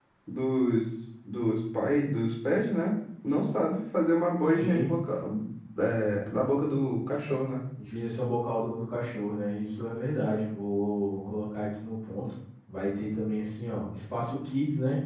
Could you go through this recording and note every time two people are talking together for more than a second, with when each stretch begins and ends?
none

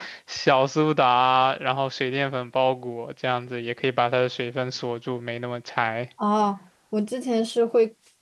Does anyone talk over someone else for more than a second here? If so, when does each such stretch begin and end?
none

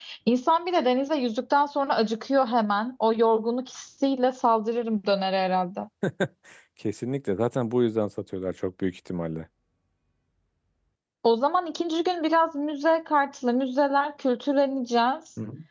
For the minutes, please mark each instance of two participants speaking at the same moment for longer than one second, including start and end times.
none

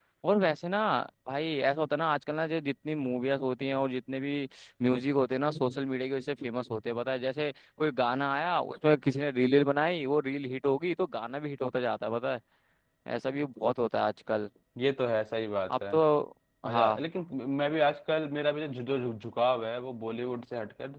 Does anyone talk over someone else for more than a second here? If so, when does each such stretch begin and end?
none

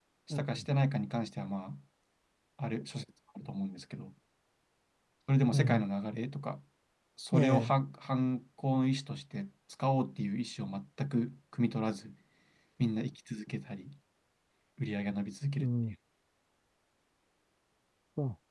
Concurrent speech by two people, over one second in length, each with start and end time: none

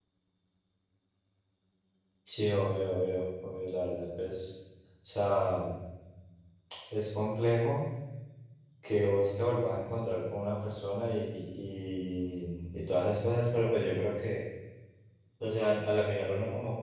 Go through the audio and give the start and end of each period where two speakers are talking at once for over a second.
none

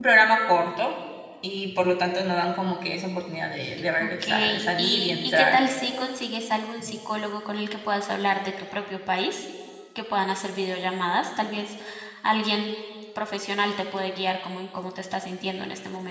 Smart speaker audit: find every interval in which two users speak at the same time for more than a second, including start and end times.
4.0-5.6

